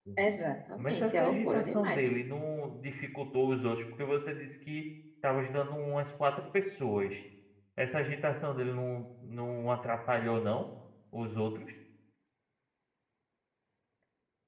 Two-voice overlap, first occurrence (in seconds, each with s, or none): 0.8 s